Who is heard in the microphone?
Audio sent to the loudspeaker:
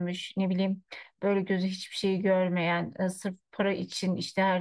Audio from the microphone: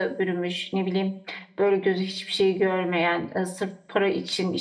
echo only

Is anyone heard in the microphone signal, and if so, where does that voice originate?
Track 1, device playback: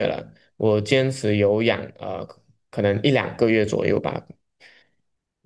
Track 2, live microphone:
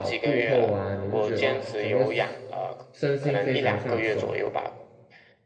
both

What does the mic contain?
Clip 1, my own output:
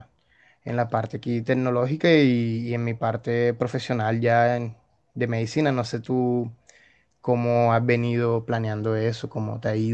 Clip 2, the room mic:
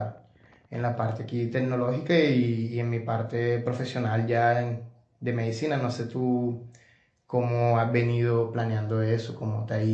echo only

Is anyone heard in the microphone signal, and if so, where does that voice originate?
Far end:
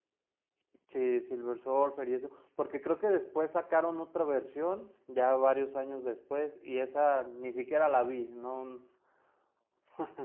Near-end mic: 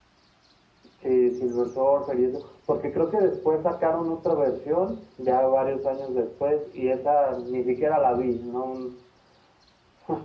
echo only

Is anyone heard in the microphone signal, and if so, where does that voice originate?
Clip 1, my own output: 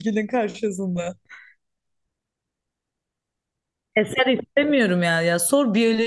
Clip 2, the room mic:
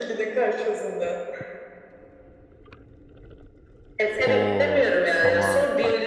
both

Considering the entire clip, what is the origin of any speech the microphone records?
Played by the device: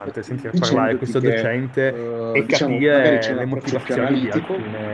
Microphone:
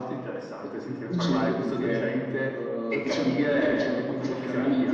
echo only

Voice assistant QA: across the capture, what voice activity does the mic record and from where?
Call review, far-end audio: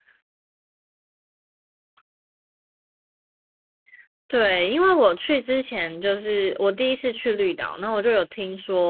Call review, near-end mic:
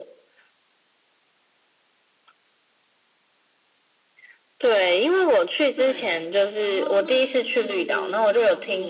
both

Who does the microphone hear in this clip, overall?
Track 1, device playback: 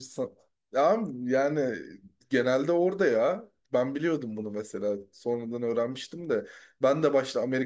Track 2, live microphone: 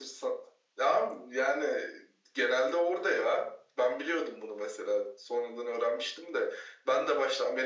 echo only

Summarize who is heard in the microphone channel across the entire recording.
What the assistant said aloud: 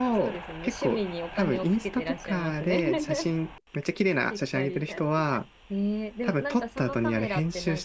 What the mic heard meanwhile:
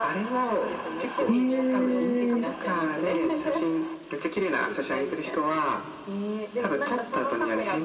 both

